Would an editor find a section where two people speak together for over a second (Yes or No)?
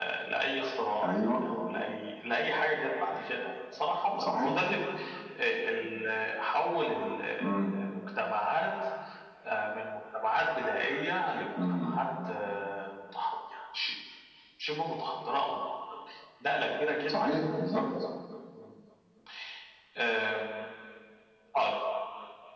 No